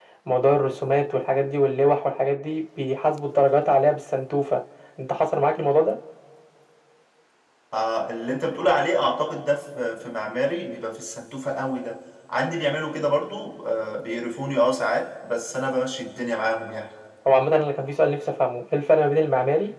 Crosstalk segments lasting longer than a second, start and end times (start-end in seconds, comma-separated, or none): none